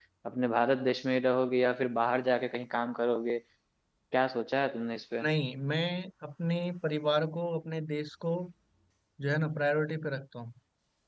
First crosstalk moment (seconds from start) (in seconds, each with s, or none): none